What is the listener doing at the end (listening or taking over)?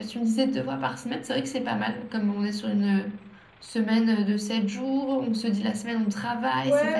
taking over